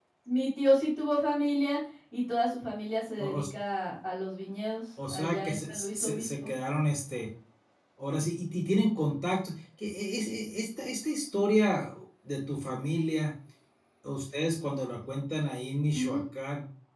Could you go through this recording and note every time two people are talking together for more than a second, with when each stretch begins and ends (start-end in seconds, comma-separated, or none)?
5.1-6.5